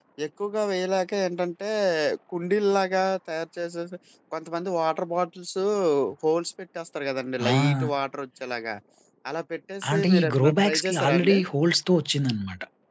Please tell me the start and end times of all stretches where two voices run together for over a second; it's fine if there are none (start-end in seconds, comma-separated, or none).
9.9-11.4